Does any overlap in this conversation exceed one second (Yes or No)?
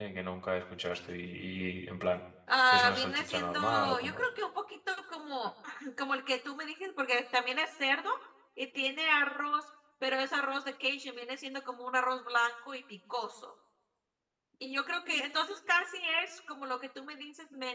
Yes